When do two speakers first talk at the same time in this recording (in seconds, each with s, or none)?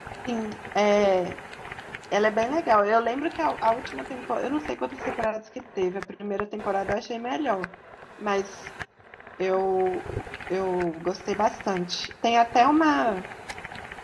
none